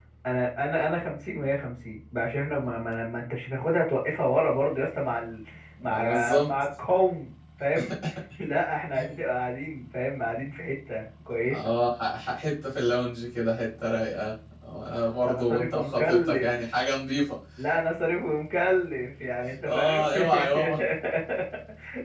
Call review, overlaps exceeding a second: present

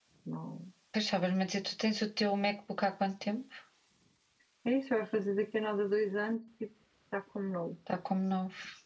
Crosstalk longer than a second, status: none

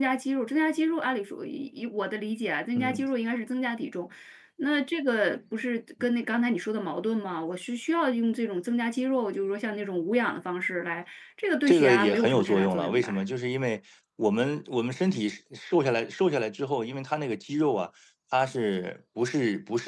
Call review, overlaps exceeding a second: present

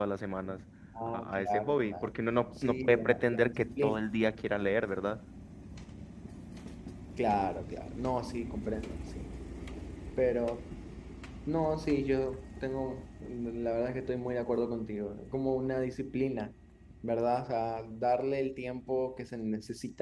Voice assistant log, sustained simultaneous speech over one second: present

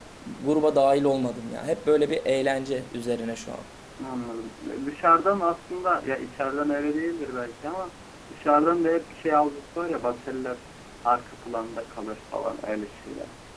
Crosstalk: none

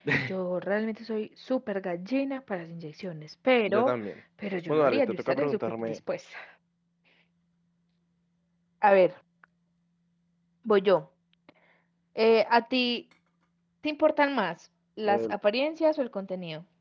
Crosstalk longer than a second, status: present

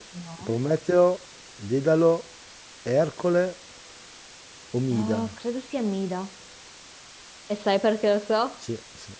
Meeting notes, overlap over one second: none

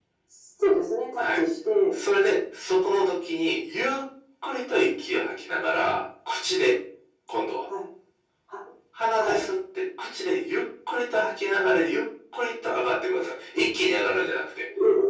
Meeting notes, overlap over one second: none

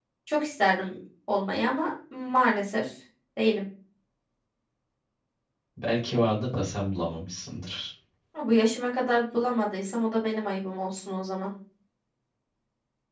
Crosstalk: none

